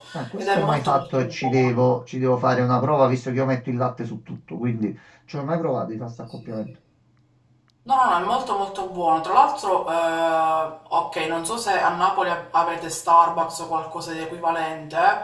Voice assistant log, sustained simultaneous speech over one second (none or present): present